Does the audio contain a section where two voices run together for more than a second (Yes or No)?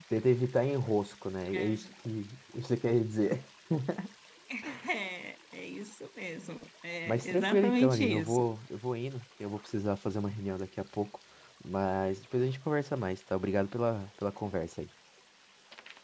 Yes